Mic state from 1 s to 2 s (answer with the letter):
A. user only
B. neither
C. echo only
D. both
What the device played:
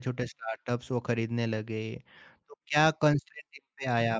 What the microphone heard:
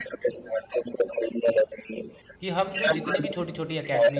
C